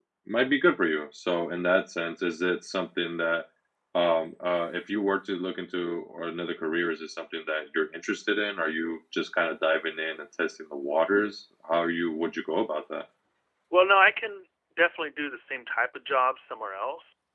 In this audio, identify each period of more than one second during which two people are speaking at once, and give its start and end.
none

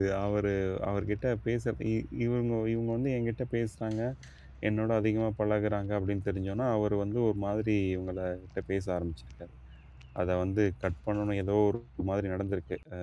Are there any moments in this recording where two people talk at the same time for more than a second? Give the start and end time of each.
none

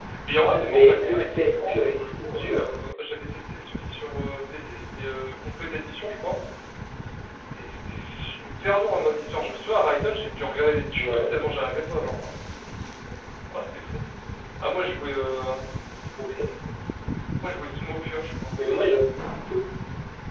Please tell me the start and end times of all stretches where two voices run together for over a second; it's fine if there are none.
0.6-2.6

